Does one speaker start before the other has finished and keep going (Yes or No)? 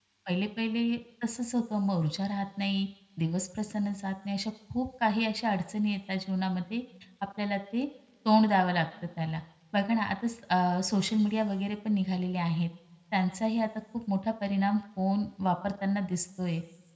No